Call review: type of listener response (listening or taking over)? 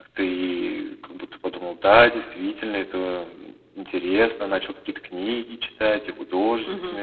listening